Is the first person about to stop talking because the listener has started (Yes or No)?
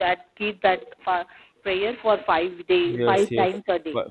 Yes